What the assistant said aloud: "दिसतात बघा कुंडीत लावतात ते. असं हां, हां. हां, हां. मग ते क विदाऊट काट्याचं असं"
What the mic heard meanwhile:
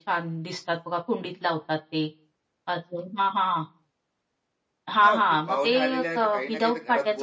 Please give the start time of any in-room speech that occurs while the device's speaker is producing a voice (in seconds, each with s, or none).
5.0 s